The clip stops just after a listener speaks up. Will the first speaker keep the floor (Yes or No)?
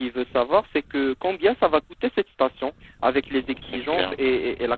Yes